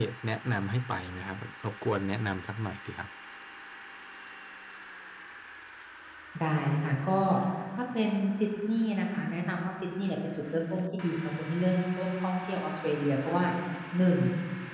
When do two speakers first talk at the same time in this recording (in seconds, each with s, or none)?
none